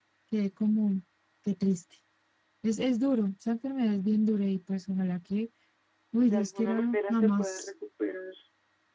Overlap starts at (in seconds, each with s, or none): 6.3 s